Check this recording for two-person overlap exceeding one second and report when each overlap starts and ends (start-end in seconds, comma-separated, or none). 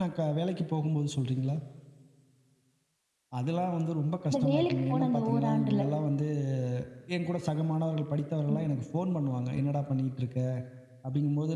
4.3-5.8